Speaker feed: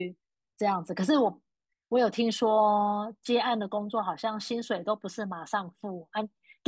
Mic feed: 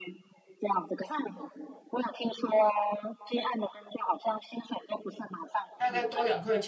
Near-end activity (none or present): present